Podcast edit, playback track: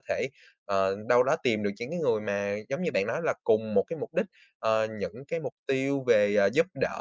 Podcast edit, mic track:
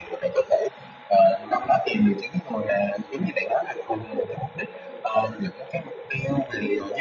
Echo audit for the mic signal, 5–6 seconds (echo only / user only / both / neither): echo only